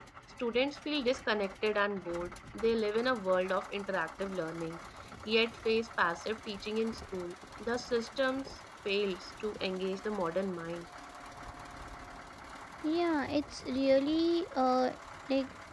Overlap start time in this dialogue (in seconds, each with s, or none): none